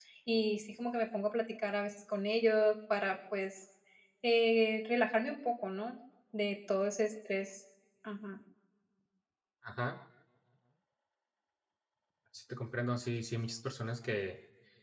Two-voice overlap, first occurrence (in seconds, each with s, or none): none